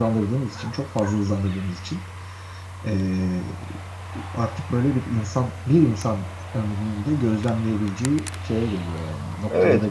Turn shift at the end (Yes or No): Yes